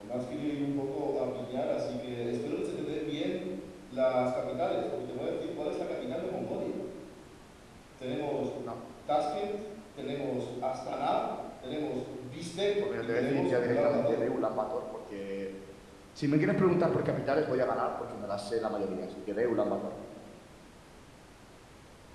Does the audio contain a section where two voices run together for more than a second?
Yes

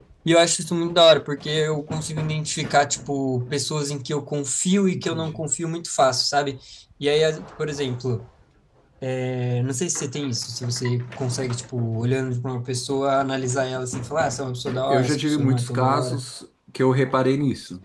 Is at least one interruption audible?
Yes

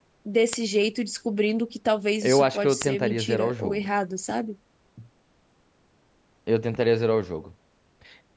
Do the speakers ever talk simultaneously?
Yes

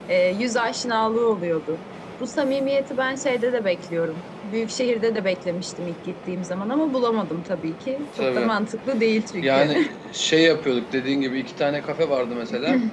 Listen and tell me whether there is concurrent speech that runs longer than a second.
No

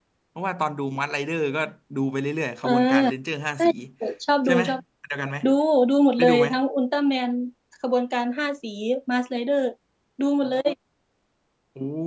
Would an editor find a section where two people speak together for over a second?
No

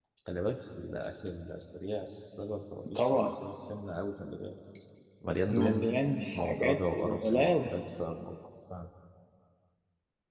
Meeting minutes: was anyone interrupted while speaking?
Yes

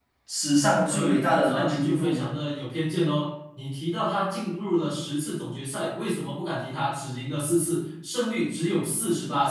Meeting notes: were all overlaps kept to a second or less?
No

